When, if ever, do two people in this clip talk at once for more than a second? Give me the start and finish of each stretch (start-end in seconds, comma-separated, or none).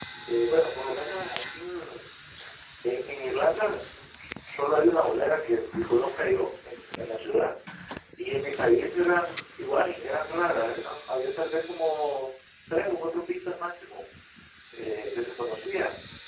none